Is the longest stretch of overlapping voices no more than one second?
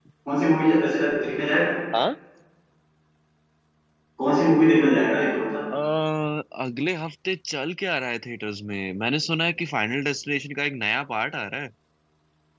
Yes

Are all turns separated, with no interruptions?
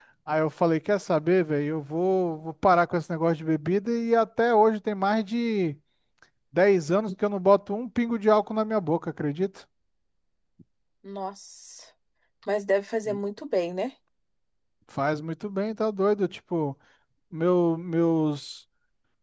Yes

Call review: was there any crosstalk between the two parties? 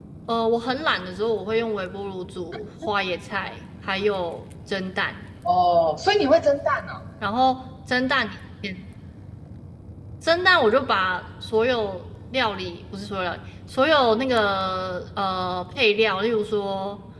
No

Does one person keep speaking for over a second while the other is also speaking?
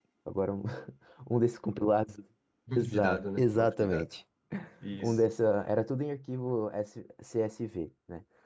Yes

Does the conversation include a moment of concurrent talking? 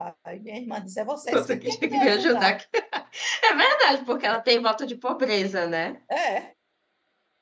Yes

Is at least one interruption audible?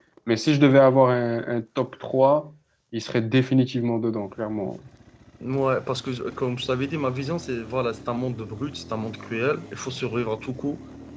No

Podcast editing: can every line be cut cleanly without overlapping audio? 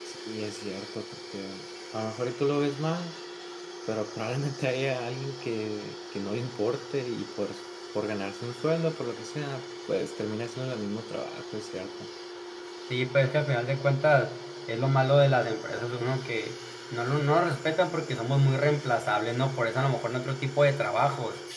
Yes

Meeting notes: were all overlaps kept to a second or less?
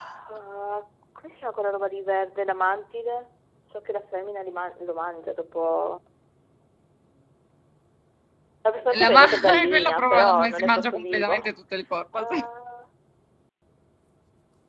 No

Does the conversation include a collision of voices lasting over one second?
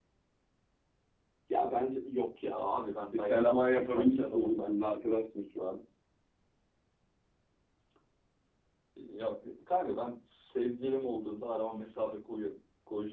Yes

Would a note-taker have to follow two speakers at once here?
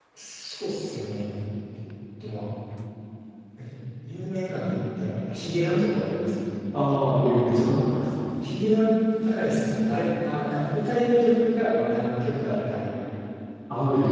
No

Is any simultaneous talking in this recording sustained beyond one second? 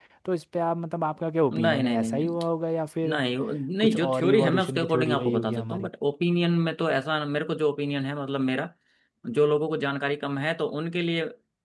Yes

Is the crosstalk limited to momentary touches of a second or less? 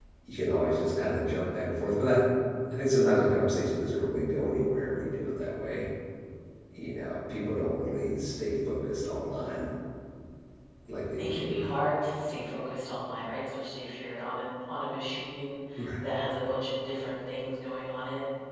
Yes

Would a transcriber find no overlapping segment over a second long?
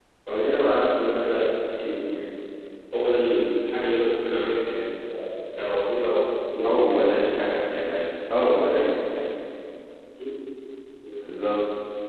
Yes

